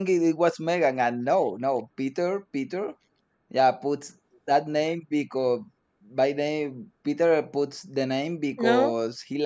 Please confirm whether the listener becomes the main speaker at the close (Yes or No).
No